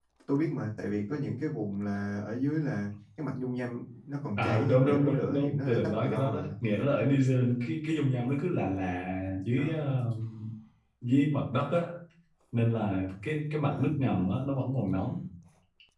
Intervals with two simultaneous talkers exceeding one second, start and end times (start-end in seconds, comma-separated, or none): 4.4-6.5